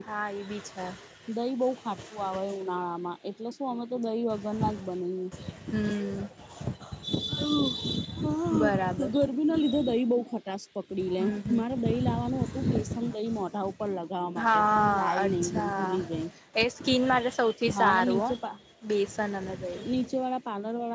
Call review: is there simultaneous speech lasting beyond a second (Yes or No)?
Yes